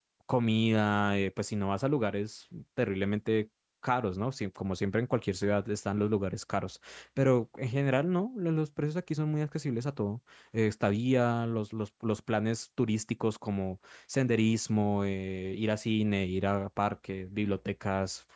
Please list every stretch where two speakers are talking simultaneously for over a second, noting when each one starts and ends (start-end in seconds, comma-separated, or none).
none